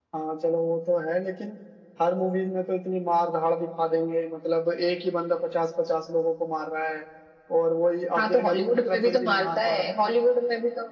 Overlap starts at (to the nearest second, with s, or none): 8 s